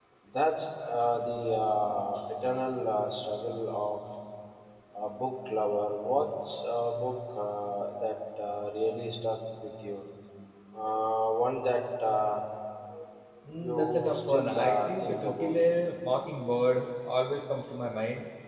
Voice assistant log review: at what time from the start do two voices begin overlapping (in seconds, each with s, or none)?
13.6 s